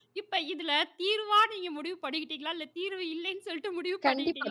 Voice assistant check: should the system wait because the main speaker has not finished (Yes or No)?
No